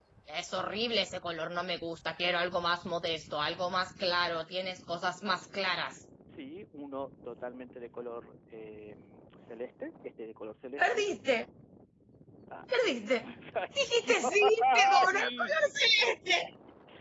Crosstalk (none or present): present